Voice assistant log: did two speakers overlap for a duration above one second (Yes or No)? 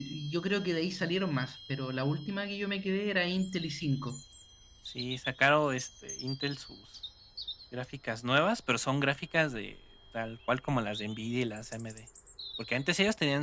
No